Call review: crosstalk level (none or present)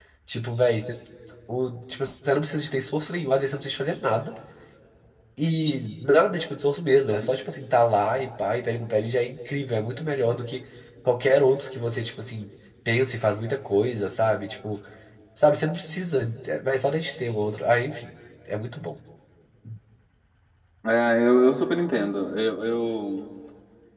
none